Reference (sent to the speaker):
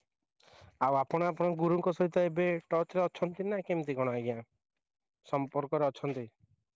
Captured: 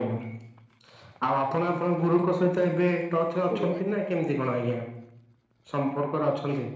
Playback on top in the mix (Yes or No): Yes